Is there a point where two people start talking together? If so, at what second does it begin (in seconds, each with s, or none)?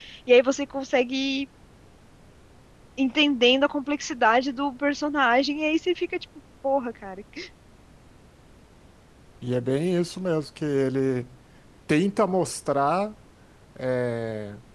none